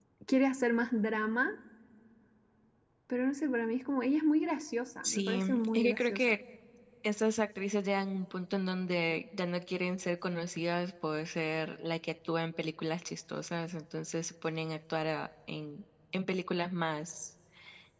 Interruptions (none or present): present